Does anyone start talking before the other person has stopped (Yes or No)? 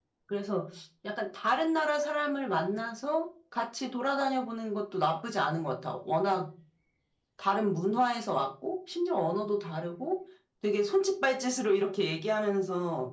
No